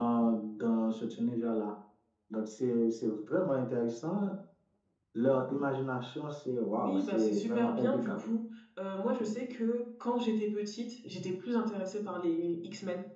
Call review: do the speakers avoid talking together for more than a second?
No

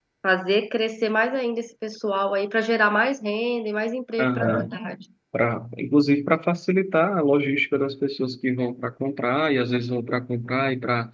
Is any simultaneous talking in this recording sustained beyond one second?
No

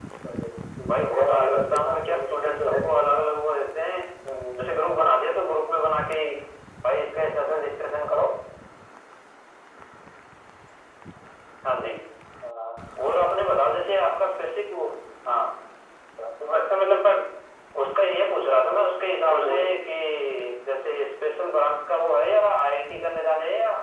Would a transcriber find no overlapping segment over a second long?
No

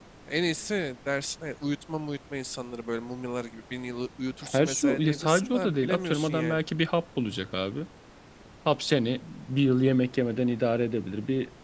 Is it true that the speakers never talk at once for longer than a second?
No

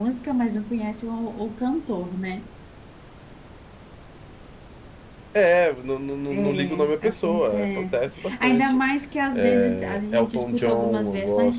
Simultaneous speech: Yes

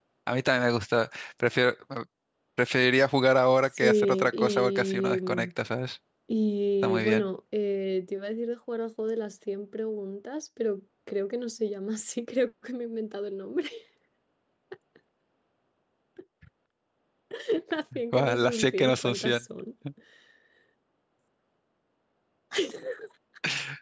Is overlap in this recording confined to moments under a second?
No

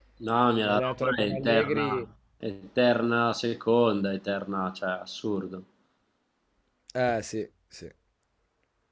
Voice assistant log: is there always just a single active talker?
No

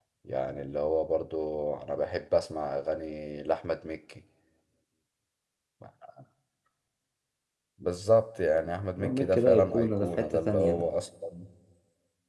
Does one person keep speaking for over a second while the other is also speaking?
Yes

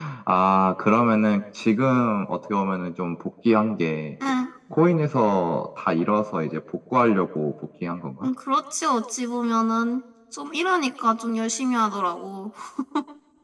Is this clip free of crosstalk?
Yes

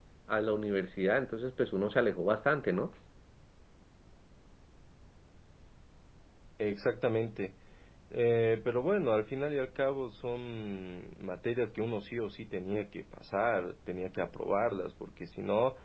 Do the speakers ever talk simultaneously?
No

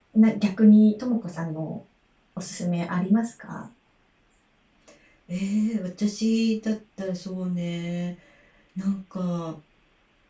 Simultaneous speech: No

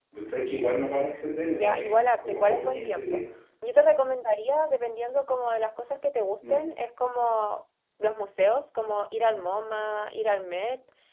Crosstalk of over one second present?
Yes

